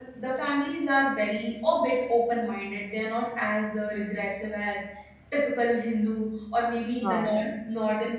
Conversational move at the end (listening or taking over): listening